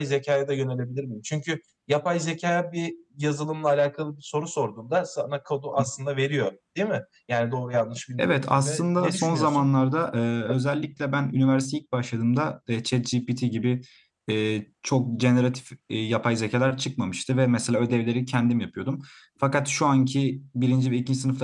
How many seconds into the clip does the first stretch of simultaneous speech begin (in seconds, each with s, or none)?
8.2 s